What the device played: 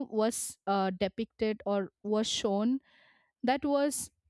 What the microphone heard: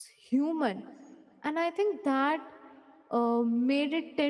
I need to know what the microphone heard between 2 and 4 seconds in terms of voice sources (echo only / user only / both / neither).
user only